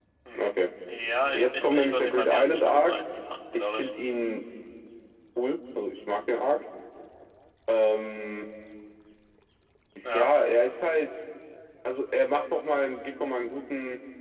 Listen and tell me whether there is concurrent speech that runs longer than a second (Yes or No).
Yes